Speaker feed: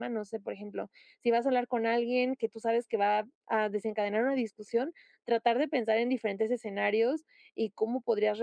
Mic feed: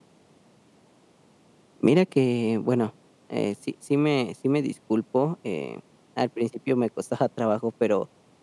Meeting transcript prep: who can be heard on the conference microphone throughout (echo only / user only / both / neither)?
user only